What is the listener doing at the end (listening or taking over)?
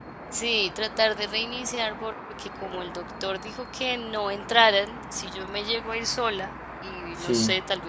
listening